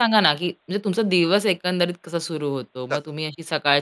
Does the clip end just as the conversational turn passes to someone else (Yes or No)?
No